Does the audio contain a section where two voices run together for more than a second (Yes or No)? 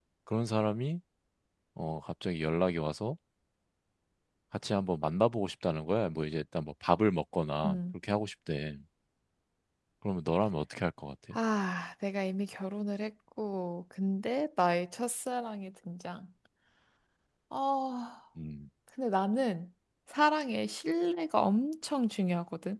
No